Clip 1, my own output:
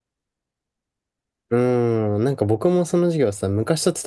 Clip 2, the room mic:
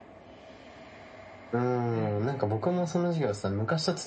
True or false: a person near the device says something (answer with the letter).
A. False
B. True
B